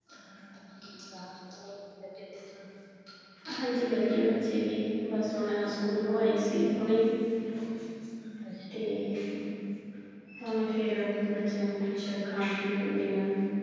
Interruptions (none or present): none